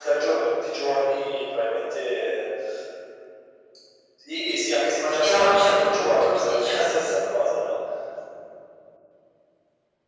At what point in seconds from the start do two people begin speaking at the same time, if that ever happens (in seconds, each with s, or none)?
5.2 s